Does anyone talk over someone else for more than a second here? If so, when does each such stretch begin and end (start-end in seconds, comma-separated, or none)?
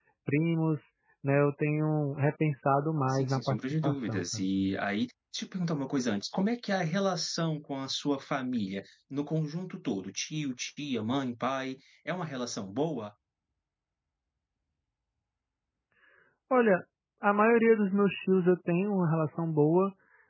3.1-4.4